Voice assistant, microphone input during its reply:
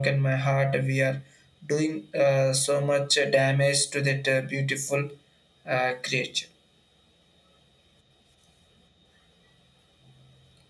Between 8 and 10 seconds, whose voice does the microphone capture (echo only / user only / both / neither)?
neither